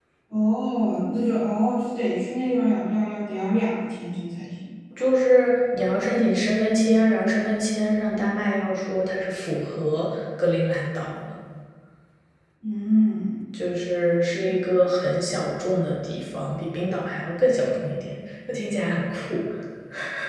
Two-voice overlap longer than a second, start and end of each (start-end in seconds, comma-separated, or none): none